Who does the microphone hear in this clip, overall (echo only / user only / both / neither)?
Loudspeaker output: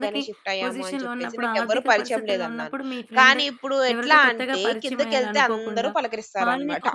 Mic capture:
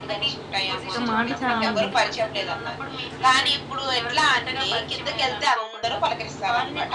both